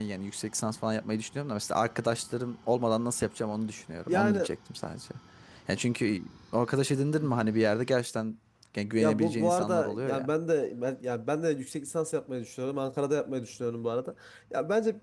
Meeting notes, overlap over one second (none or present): present